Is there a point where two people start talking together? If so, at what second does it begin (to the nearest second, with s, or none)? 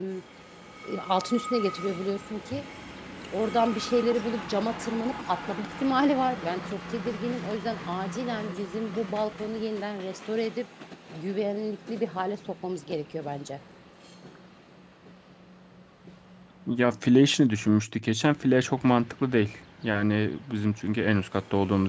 none